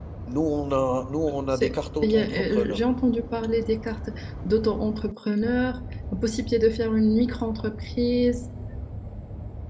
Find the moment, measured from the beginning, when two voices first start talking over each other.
1.5 s

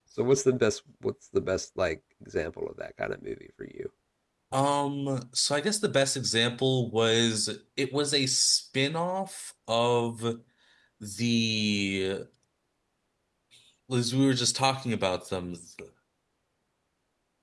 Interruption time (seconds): none

